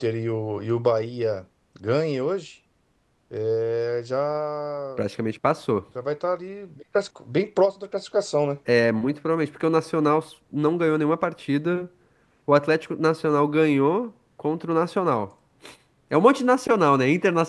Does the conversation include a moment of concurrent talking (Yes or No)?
No